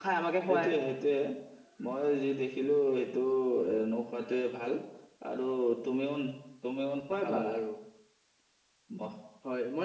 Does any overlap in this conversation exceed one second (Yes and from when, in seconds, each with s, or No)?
No